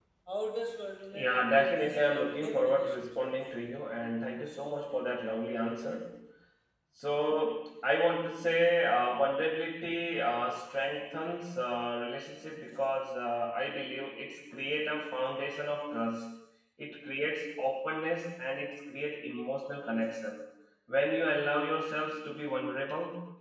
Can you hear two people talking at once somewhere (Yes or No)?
Yes